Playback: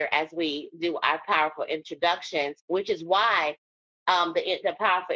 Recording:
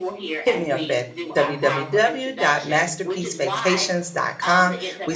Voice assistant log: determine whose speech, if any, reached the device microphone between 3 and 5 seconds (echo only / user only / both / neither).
both